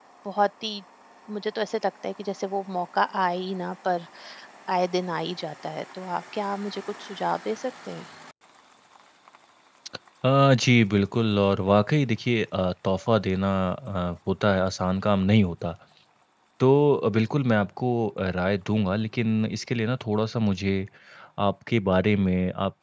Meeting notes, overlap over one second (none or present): none